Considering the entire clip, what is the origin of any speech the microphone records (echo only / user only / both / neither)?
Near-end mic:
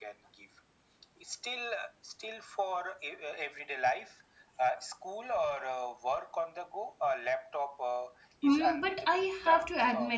both